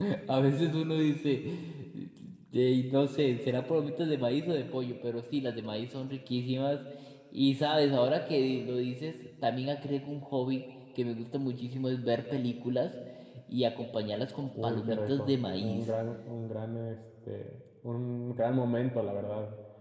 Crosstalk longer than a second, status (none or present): present